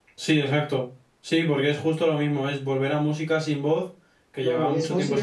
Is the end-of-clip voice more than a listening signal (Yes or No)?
Yes